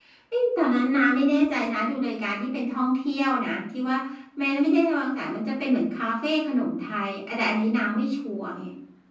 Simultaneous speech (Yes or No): No